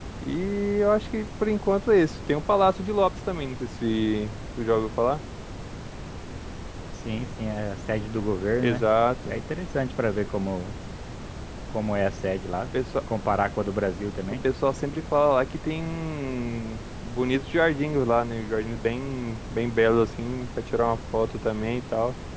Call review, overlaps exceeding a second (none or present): none